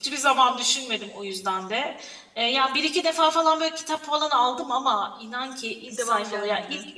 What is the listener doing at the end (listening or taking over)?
listening